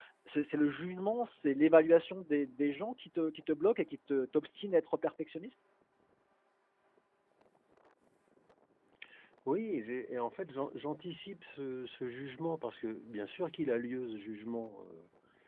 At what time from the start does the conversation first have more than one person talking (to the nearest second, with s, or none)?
none